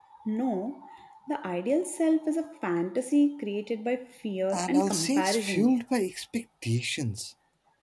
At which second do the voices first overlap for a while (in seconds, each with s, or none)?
4.5 s